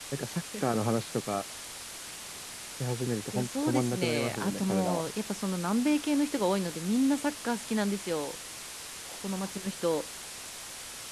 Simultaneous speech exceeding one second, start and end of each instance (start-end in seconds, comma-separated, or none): 3.3-5.1